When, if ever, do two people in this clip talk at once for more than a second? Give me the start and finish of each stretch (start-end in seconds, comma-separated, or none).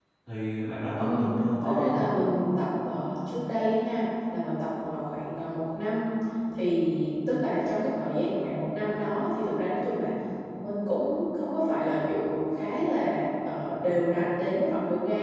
none